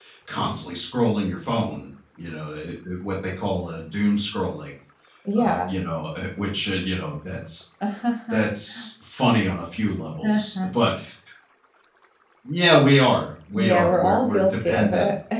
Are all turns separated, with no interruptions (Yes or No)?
No